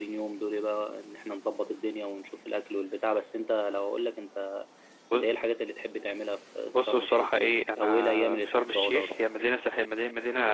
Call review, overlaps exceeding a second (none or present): present